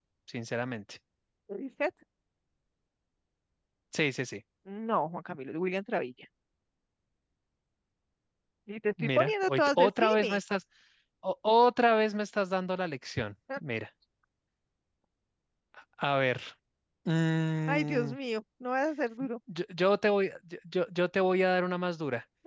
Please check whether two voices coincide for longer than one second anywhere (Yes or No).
Yes